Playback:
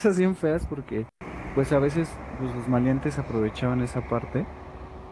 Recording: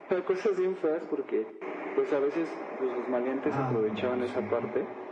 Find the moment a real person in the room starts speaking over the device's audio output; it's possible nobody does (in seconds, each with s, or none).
3.4 s